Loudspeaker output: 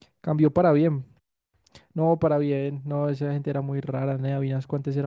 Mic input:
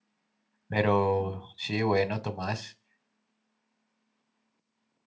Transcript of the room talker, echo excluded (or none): Pero sí, bueno, Tomás,